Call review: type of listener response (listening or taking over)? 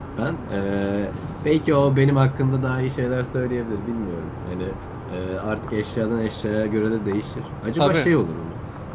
listening